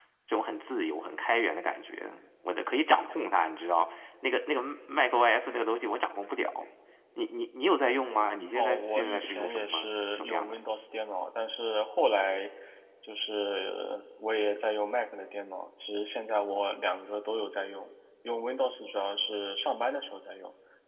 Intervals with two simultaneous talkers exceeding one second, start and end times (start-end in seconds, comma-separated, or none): 8.5-10.6